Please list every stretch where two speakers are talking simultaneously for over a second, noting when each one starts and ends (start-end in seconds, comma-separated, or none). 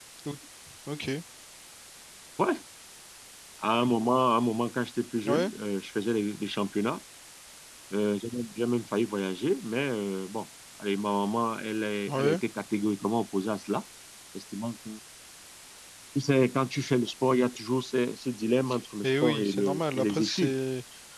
19.0-20.5